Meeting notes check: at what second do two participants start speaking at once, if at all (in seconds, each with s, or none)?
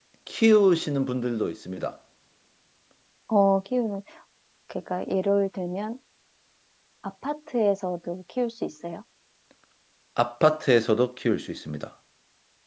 none